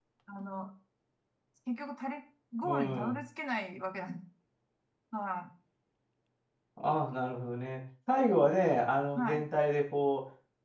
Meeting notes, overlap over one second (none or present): none